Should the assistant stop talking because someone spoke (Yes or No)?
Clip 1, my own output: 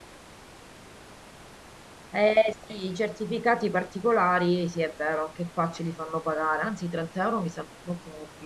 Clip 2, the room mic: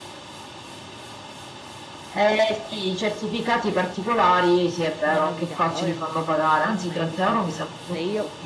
Yes